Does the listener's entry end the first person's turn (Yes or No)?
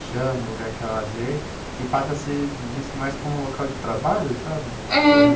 Yes